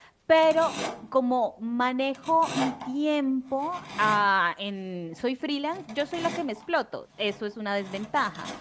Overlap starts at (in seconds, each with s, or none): none